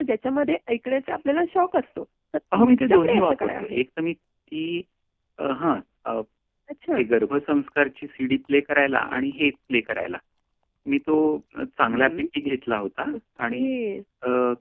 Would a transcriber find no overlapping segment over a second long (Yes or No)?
No